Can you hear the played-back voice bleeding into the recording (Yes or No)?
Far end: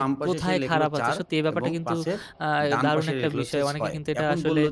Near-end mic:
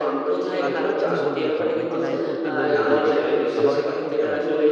Yes